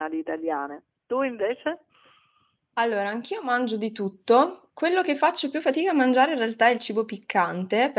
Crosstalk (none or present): none